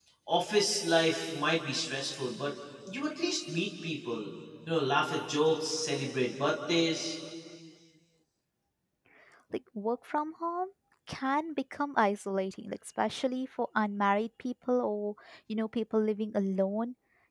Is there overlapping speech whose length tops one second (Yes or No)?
No